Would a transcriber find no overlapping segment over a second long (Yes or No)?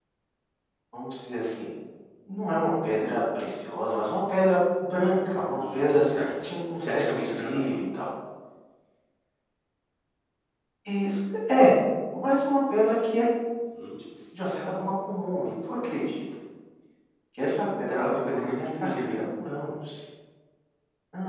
No